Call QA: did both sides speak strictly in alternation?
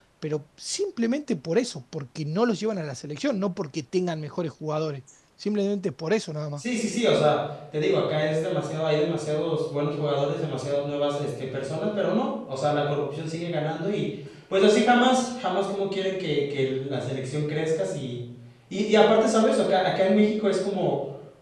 Yes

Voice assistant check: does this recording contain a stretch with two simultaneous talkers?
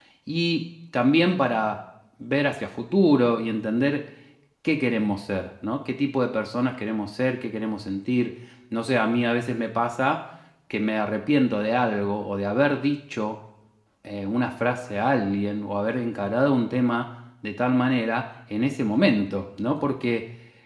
No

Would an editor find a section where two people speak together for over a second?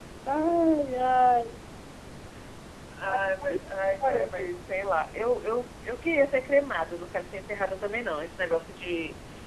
No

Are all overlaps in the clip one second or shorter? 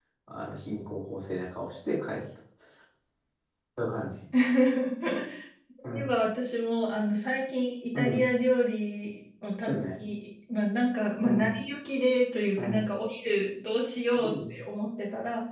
Yes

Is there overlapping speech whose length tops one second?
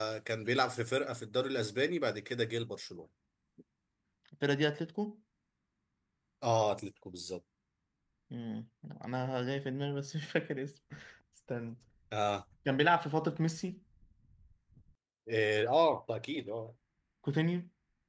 No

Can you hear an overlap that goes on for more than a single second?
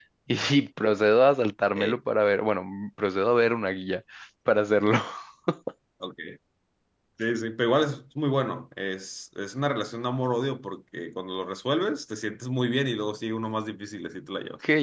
No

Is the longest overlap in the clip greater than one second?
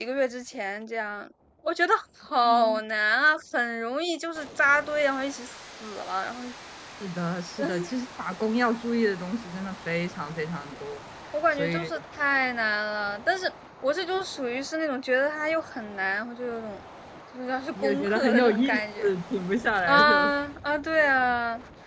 Yes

